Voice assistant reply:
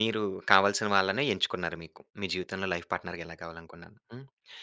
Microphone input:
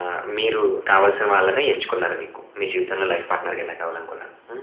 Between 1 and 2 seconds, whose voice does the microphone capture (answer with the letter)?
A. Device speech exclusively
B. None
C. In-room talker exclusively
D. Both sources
A